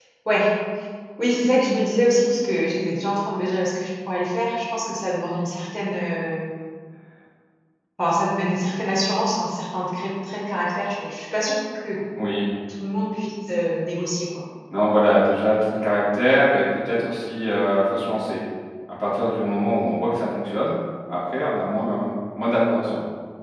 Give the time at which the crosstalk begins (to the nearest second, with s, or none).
none